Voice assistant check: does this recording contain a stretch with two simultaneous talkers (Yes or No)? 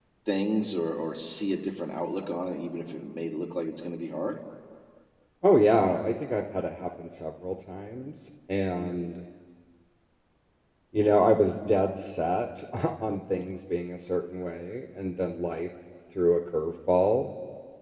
No